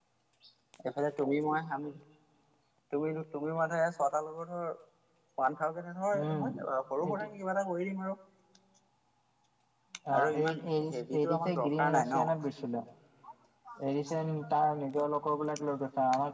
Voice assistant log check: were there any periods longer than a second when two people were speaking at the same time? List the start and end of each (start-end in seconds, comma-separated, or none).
10.2-12.3